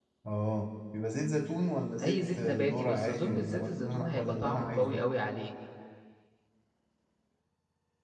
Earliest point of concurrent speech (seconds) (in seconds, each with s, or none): 2.0 s